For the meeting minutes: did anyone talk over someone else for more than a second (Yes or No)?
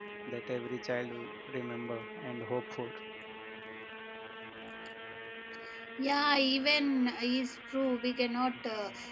No